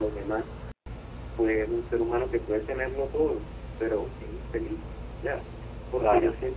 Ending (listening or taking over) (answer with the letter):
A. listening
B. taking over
A